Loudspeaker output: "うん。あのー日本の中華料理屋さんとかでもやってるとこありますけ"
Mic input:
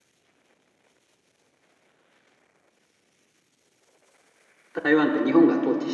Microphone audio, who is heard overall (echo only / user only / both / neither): user only